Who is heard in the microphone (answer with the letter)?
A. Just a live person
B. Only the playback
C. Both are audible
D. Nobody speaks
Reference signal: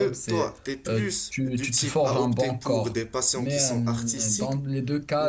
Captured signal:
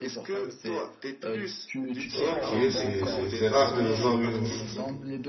C